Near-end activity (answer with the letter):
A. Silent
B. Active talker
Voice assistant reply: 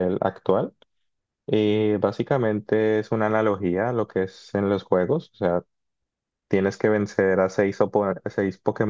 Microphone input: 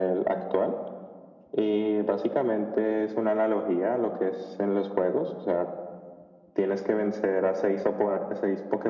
A